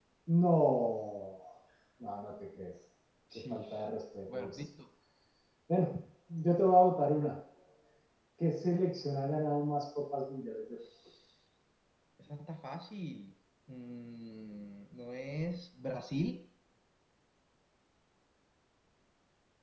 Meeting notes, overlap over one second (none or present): none